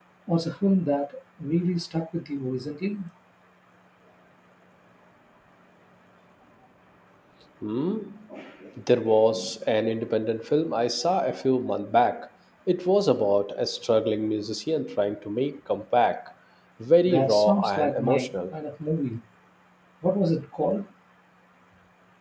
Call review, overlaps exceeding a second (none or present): present